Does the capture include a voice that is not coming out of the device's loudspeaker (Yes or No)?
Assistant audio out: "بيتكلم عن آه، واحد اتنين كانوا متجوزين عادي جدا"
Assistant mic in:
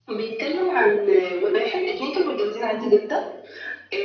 No